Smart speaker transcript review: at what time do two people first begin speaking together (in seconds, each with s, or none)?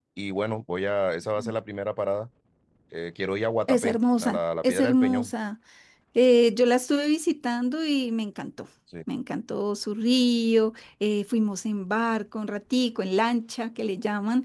3.7 s